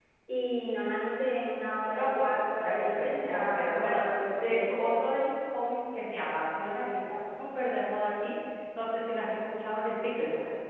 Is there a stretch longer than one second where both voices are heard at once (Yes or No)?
Yes